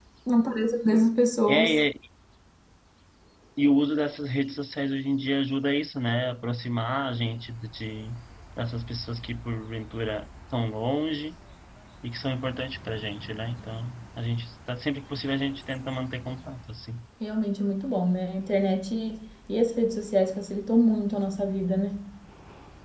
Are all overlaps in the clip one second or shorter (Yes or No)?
Yes